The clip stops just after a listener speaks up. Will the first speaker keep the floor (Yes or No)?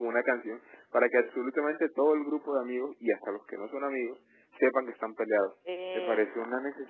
Yes